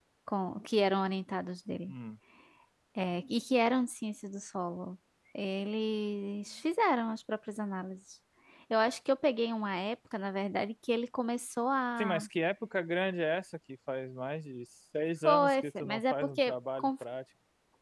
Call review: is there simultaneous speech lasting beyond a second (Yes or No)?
Yes